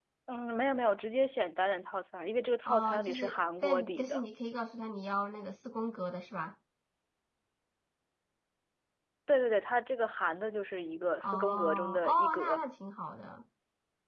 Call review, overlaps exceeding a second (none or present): present